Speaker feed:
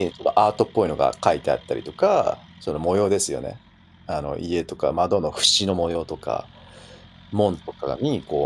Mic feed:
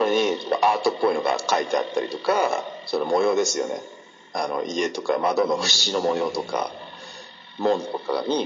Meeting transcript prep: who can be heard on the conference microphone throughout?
both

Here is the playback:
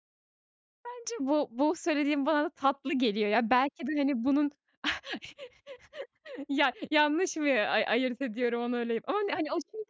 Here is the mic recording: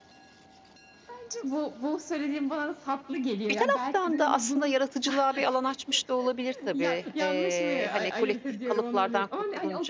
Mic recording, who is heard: both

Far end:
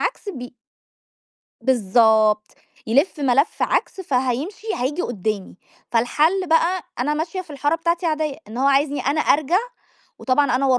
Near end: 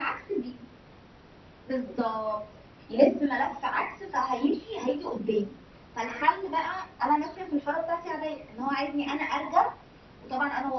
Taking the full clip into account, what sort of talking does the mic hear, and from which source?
echo only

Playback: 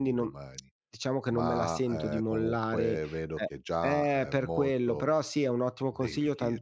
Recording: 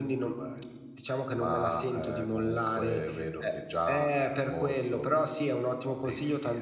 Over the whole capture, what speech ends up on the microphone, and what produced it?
echo only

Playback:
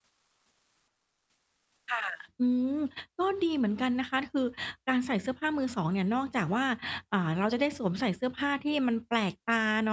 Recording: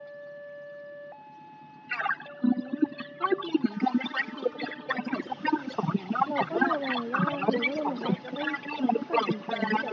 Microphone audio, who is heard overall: both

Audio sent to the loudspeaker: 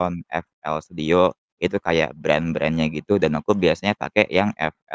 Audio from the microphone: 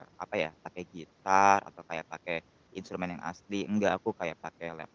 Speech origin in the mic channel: user only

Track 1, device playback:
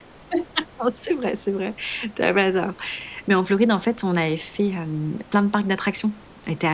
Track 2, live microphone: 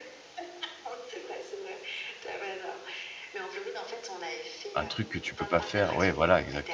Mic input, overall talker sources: both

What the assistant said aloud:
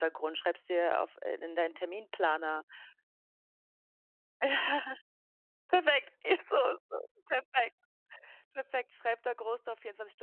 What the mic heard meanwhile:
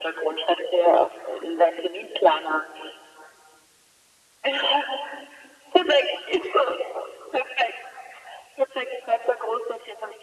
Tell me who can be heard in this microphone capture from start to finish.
echo only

